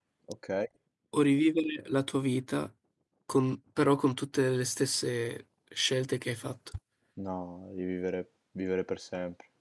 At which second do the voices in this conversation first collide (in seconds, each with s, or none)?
none